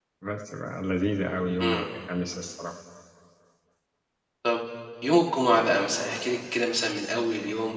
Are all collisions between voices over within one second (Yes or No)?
Yes